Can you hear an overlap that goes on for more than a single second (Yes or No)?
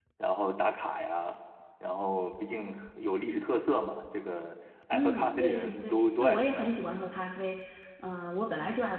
Yes